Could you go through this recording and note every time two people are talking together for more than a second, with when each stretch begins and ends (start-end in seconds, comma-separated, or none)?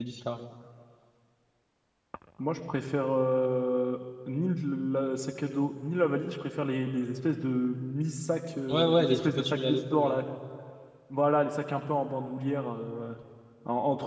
8.7-10.2